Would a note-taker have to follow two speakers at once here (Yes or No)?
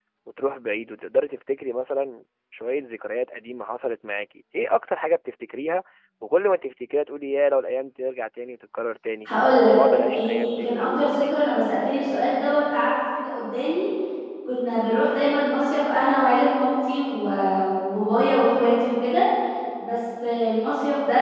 Yes